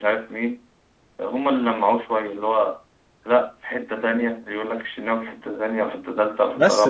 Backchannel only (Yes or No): No